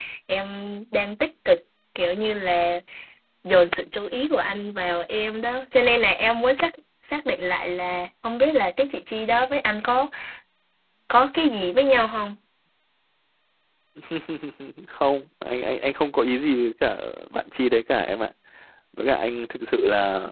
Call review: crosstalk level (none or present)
none